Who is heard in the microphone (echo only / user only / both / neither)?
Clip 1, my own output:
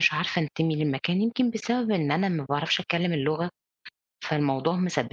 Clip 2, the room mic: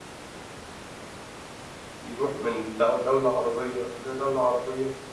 user only